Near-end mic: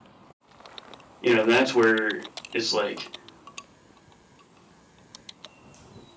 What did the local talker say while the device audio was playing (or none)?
You know, that's where it's like,